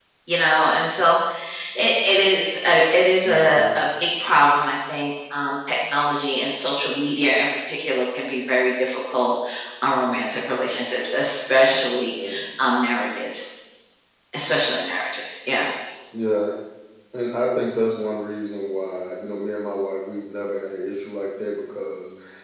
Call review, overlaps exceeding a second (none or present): none